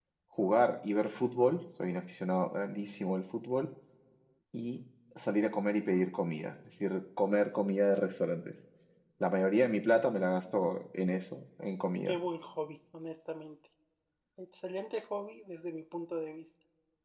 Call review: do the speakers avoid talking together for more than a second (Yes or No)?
Yes